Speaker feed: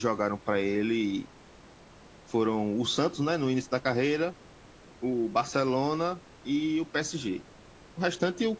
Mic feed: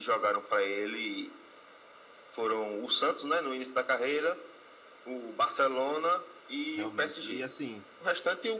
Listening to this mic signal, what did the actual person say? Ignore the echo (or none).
realmente. E assim,